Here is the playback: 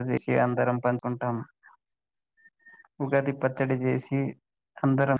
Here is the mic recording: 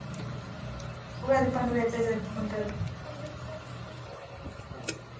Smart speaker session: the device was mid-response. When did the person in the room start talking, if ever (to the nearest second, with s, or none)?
1 s